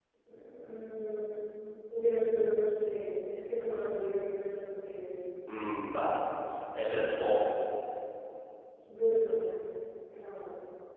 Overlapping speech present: No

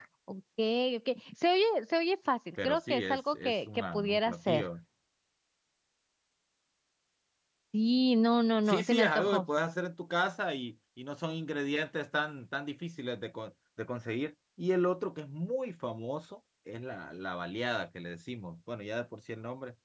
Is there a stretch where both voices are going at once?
Yes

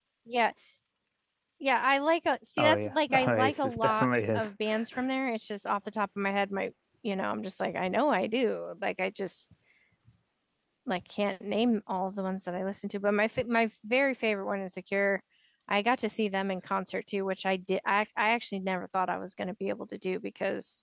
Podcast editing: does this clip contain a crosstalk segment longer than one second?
Yes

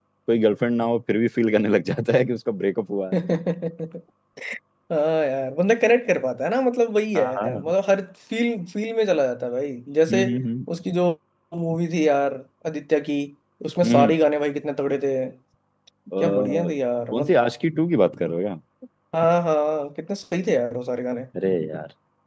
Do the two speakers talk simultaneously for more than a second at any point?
No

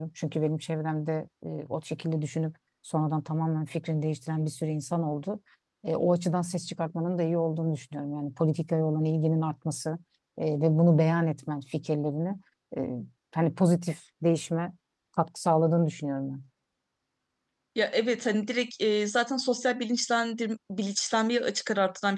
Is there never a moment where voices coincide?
Yes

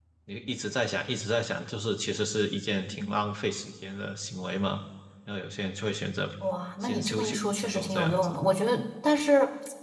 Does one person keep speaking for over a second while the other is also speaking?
Yes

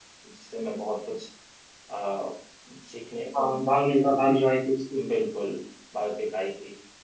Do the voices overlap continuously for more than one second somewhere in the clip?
No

